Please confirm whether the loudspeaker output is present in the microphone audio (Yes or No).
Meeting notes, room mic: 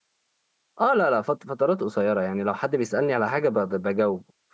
No